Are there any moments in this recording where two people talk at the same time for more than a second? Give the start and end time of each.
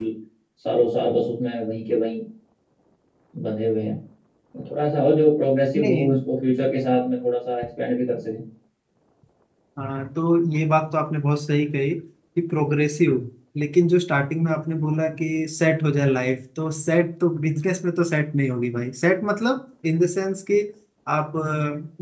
none

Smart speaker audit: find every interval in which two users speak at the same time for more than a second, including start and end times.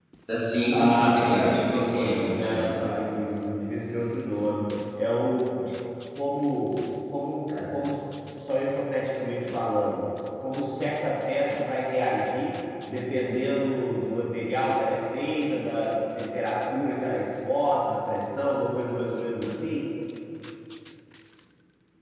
0.7-2.7

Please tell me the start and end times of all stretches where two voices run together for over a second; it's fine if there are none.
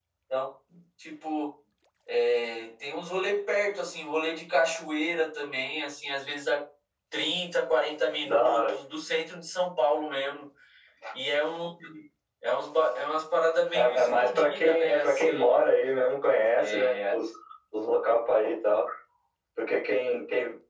13.7-15.6

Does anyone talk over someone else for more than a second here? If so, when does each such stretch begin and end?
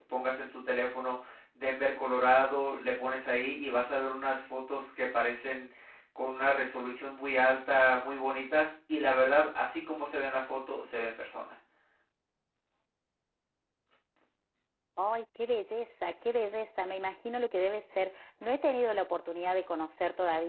none

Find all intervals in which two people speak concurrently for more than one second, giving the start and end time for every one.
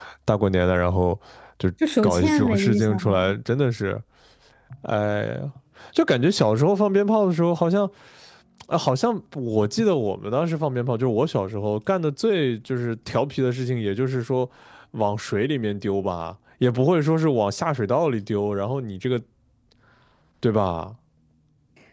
2.0-3.3

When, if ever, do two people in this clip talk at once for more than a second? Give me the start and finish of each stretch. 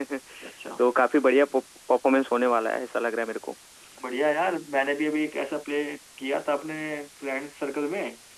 none

